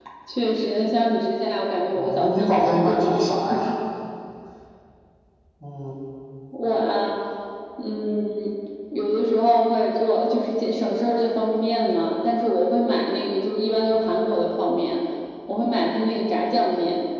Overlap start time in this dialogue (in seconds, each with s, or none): 2.0 s